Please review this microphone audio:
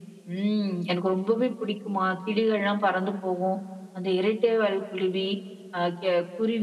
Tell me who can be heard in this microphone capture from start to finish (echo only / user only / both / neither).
echo only